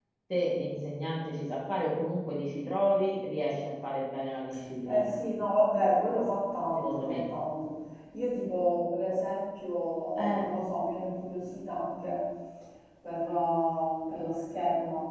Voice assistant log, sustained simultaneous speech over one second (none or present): none